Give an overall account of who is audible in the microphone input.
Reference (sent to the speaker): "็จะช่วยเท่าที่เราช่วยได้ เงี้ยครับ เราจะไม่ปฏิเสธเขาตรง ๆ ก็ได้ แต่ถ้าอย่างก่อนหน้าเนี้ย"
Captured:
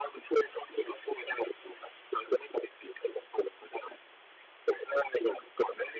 echo only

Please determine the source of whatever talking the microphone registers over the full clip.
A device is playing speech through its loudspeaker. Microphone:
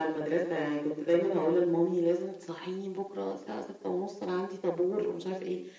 echo only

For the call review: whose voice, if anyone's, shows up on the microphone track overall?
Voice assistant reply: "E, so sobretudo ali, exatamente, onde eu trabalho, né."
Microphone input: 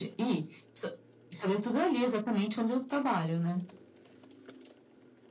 echo only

